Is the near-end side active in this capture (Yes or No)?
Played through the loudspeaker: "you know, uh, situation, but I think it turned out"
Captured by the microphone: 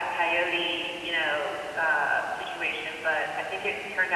No